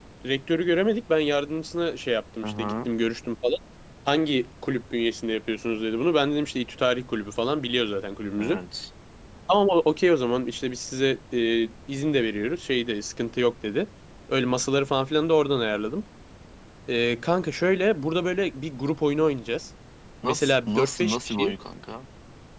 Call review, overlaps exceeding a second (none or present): present